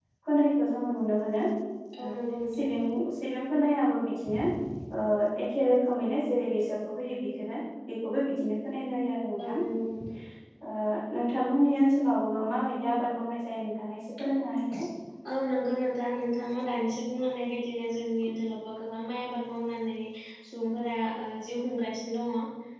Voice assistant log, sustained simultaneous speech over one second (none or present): none